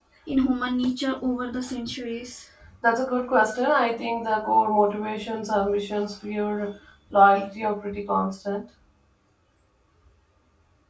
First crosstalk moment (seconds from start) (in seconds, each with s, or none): none